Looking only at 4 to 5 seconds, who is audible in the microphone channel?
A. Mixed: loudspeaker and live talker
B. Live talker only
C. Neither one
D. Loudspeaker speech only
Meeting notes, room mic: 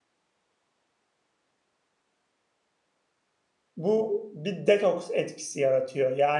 B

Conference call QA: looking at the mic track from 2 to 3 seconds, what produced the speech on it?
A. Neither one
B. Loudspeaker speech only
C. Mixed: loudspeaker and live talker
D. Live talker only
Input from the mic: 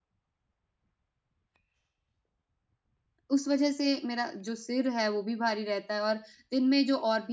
A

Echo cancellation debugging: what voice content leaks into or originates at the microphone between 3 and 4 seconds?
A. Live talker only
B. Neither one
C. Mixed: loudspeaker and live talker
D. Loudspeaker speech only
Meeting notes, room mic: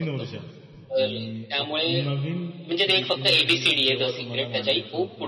C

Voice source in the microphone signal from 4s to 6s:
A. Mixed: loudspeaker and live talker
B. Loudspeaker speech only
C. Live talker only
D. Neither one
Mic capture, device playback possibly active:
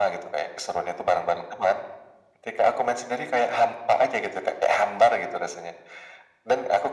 B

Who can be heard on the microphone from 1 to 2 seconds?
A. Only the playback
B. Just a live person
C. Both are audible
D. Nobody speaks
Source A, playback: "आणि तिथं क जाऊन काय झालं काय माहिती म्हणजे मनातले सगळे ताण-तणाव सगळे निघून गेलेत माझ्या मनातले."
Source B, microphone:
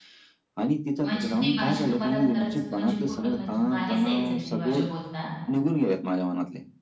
C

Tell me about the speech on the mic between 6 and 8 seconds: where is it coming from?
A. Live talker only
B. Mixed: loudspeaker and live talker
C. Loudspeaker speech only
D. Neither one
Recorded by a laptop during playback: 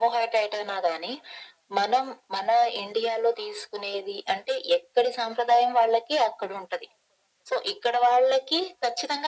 C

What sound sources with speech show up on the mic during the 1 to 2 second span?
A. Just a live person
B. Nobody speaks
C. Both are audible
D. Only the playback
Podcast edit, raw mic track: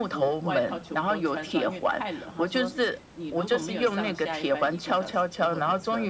C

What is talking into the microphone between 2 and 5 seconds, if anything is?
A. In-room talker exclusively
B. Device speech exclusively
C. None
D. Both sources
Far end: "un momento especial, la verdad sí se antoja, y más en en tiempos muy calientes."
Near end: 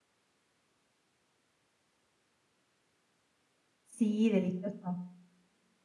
A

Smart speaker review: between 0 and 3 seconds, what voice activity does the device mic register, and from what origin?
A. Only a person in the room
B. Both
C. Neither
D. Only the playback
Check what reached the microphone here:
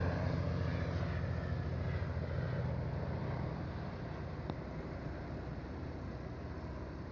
C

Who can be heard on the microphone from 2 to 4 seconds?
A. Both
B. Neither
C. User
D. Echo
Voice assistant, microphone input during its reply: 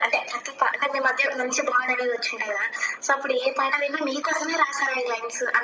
D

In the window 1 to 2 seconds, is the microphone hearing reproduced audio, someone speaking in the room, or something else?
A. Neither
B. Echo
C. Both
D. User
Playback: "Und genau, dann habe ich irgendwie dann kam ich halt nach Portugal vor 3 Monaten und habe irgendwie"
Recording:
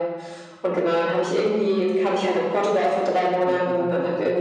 B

